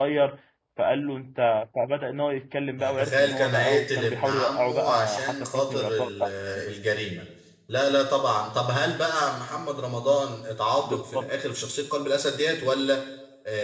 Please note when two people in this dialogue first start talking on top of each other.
3 s

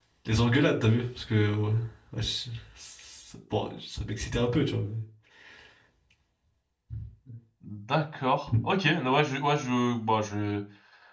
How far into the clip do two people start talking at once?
none

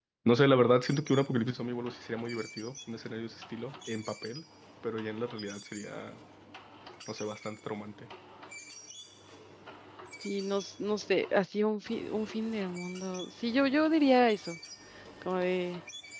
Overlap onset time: none

